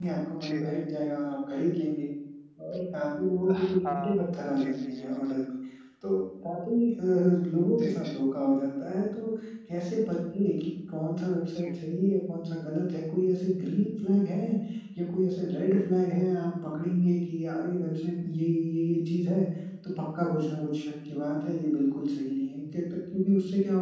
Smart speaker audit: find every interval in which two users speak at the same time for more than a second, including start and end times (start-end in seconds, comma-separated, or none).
3.5-5.4